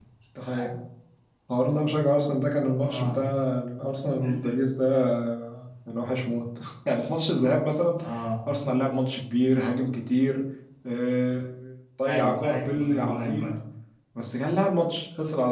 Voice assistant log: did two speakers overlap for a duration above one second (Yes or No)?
Yes